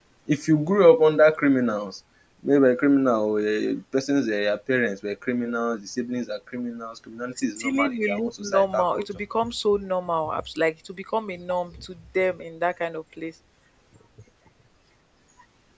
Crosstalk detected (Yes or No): Yes